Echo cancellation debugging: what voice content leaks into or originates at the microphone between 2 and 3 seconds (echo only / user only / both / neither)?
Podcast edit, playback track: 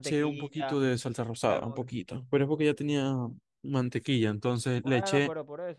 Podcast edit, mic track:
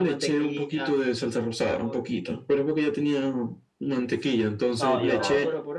echo only